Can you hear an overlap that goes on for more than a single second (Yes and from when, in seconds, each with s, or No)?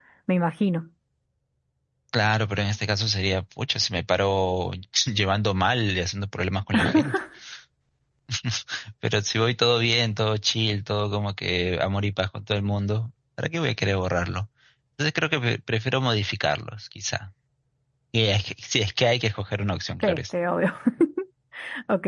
No